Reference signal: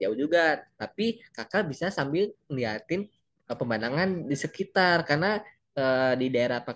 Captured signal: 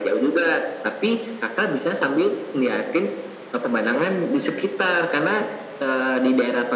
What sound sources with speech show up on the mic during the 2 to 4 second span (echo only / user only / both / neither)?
echo only